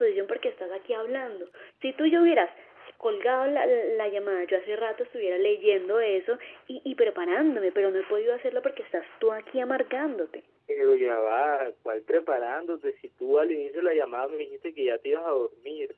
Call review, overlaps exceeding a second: none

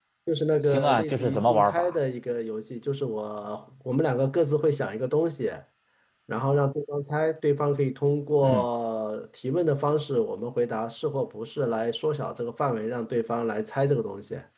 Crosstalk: present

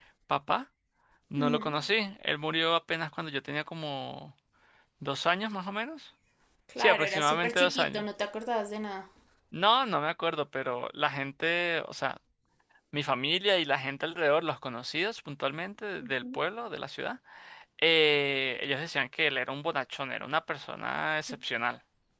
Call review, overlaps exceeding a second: present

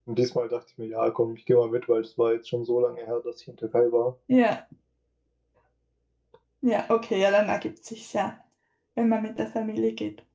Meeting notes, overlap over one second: none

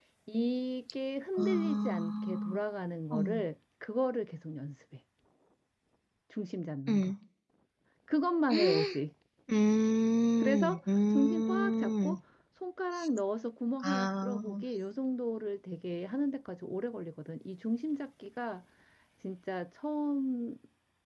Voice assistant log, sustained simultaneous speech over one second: present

